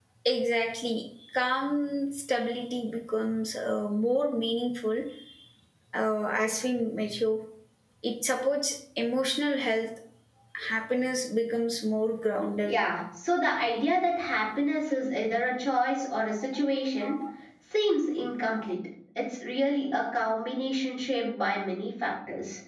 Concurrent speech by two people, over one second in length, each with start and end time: none

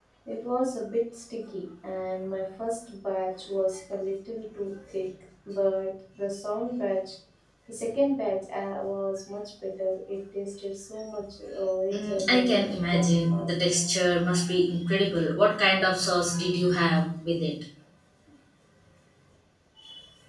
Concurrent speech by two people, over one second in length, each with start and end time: 11.9-13.5

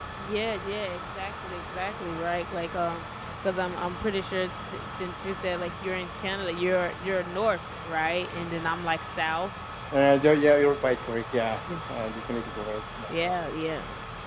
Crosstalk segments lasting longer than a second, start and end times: none

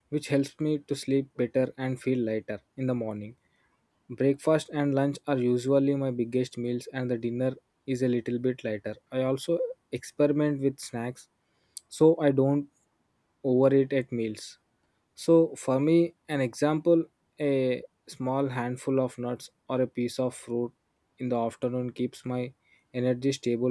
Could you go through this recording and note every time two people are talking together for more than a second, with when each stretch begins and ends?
none

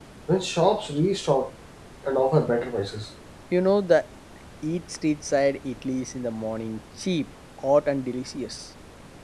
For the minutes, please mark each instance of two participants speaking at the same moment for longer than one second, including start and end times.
none

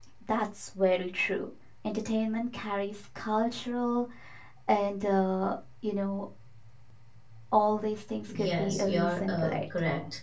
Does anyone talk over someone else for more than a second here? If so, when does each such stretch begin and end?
8.3-9.6

